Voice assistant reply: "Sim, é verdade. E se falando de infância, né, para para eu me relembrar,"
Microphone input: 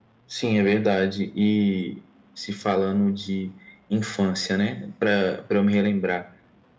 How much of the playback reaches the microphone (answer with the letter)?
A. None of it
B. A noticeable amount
B